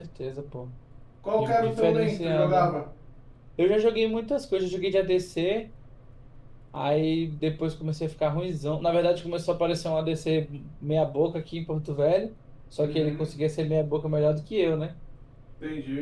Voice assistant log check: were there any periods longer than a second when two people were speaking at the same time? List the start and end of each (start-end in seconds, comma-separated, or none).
1.4-2.7